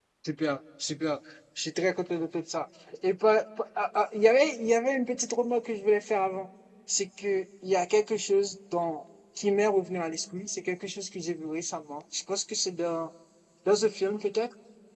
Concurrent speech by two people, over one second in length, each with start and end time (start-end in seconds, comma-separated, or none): none